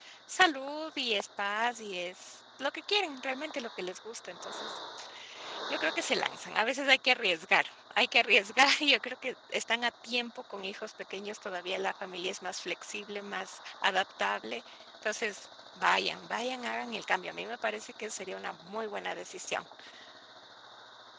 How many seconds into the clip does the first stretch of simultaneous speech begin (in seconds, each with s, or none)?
none